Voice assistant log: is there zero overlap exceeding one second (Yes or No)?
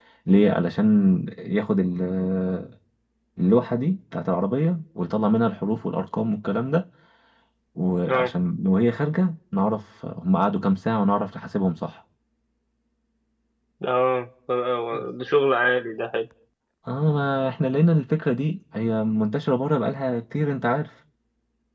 Yes